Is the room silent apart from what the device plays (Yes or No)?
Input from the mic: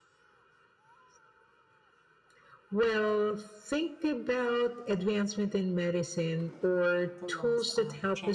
No